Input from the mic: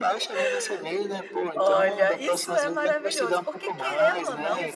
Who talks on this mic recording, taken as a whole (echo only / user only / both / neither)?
both